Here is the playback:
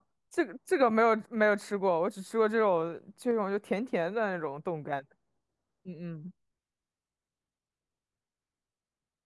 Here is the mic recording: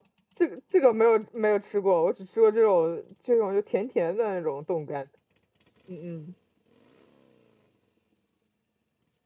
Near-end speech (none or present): none